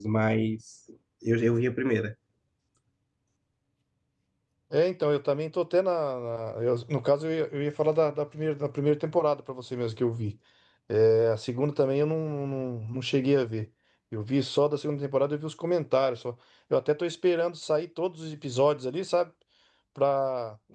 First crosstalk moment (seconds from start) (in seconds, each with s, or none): none